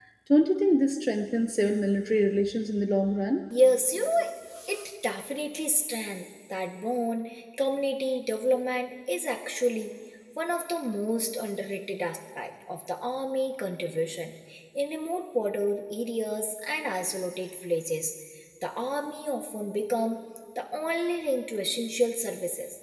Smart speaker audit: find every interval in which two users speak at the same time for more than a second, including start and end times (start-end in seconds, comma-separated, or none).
none